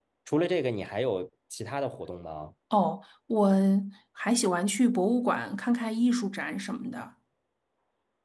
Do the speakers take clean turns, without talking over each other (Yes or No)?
Yes